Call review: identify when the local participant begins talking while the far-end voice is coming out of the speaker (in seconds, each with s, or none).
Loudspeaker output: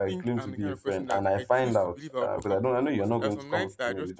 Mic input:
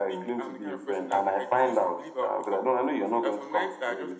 none